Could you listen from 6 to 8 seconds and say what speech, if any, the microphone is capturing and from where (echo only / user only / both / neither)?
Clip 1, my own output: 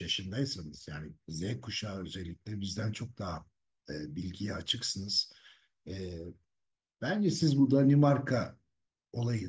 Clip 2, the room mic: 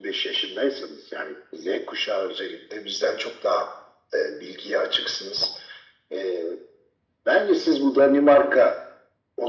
echo only